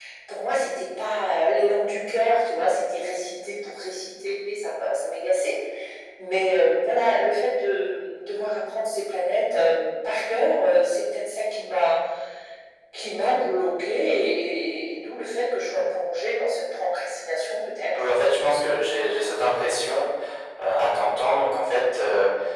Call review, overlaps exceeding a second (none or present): none